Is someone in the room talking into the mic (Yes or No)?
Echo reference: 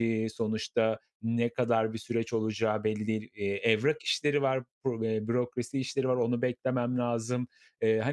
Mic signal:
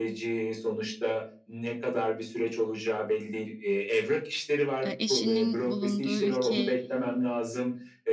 Yes